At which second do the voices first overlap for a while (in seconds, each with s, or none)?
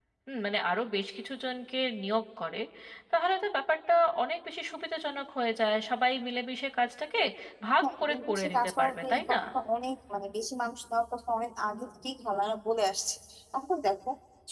7.8 s